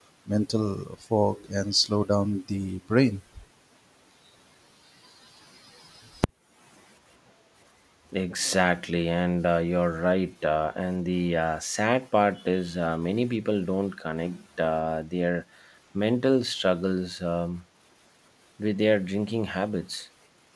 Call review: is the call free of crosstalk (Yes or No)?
Yes